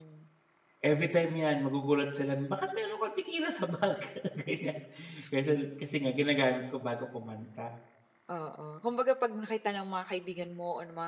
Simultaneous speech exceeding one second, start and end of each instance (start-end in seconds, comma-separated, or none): none